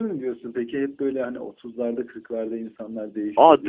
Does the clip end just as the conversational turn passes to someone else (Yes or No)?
Yes